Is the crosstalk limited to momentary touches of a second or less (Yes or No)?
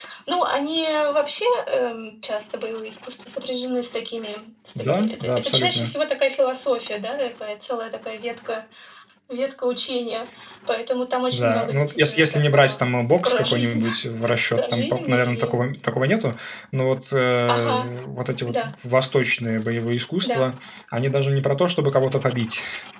No